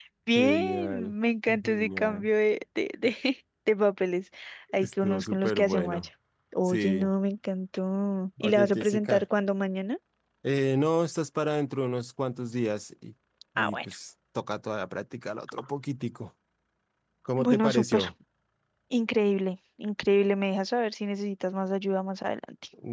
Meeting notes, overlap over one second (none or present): present